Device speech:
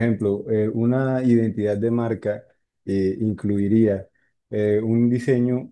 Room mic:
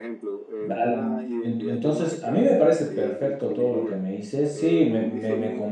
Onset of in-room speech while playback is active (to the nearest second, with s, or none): 1 s